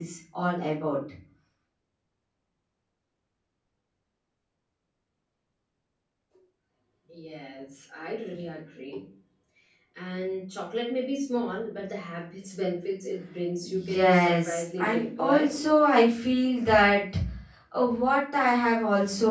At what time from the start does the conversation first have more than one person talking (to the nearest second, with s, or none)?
14 s